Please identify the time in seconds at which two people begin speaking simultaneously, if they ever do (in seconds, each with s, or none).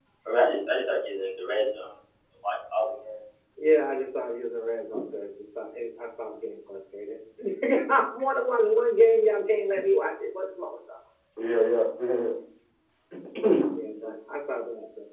none